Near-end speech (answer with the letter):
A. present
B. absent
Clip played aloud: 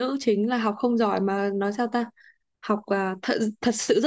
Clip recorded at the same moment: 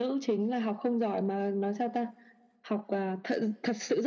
B